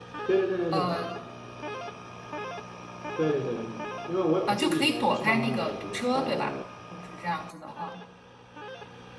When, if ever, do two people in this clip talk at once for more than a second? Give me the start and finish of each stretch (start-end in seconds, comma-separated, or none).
4.5-6.0